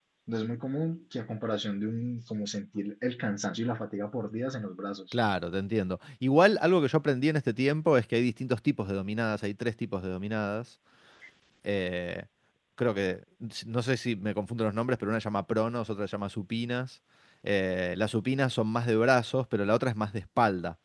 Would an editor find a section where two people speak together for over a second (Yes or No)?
No